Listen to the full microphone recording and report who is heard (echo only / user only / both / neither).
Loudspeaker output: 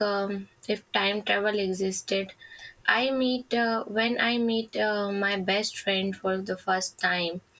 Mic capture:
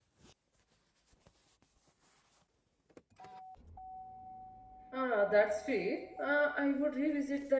user only